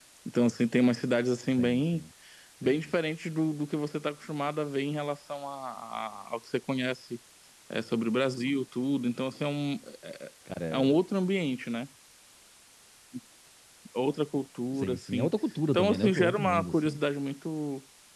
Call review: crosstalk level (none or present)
present